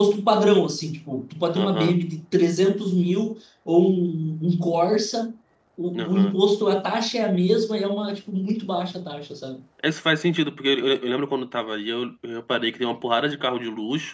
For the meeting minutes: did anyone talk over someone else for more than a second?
No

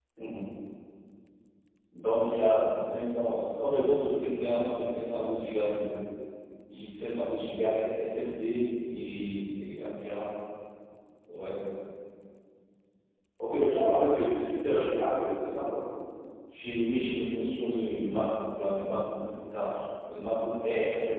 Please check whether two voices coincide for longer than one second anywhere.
No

